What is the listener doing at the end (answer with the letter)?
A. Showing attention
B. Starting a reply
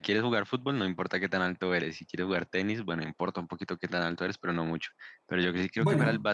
A